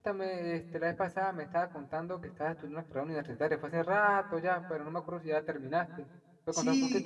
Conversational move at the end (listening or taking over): taking over